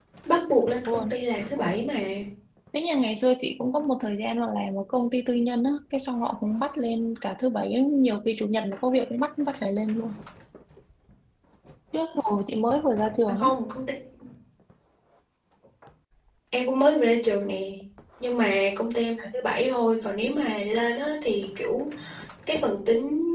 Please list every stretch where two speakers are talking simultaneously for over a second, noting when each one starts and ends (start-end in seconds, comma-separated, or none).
none